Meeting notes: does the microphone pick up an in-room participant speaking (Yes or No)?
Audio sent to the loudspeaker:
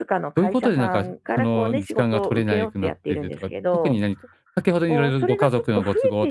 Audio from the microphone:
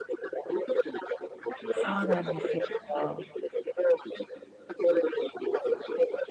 Yes